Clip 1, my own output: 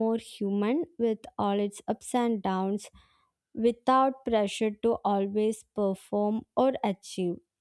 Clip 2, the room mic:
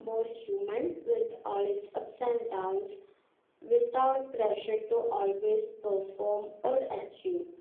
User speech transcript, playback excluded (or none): none